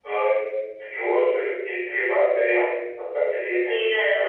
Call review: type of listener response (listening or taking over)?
taking over